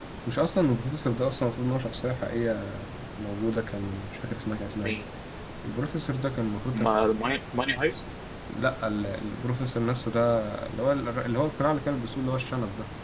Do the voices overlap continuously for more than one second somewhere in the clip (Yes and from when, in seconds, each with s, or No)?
No